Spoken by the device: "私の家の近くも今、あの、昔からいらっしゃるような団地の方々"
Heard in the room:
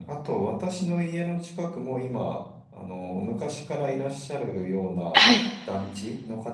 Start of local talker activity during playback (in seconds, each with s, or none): 5.1 s